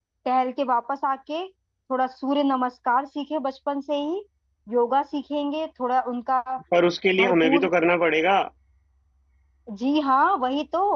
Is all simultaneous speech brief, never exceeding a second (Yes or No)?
Yes